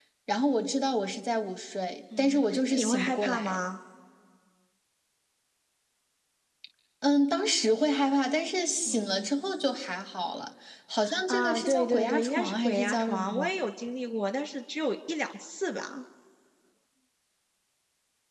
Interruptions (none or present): present